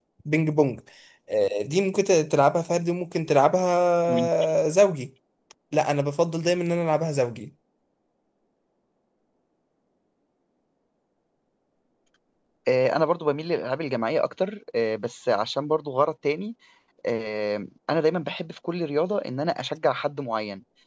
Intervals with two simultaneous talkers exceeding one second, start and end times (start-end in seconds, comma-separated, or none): none